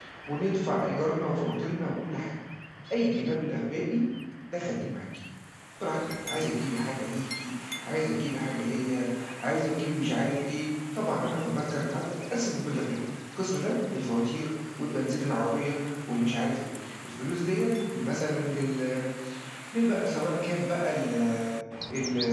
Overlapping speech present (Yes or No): No